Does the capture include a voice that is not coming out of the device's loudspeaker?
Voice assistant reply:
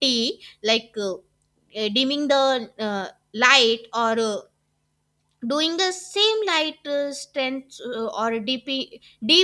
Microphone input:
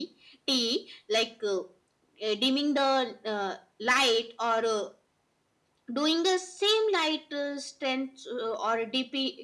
No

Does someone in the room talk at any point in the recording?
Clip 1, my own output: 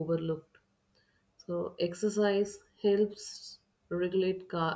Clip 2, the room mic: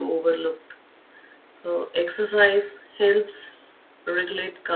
No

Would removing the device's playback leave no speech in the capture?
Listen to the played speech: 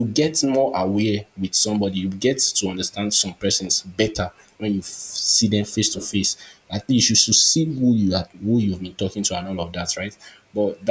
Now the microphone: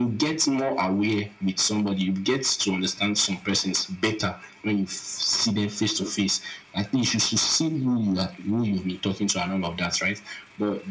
Yes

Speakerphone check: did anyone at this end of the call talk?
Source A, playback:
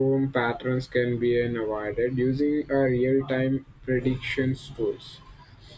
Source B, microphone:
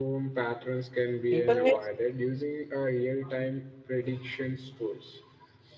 Yes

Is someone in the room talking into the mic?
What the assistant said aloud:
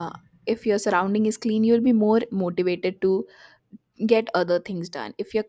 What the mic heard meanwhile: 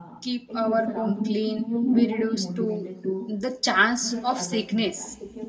Yes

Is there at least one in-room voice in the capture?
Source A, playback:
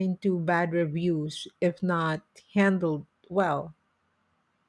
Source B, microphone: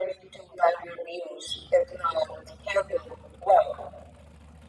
No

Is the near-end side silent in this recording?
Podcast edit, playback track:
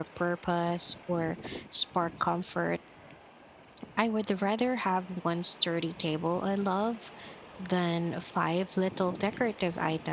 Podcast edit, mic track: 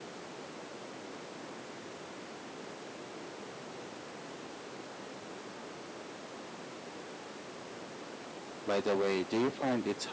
No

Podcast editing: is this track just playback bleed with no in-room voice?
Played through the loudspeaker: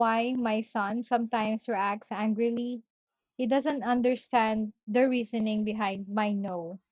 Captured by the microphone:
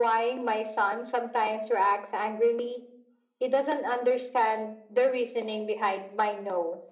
Yes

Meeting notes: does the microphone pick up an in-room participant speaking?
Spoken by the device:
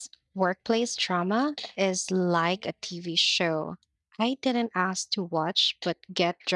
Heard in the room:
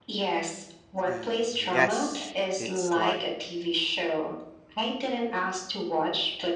Yes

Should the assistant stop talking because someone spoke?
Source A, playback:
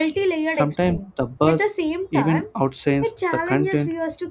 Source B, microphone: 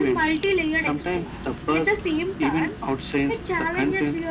No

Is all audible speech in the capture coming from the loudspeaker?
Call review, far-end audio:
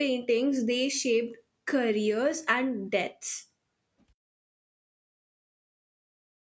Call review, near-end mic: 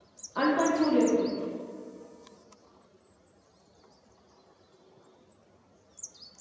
No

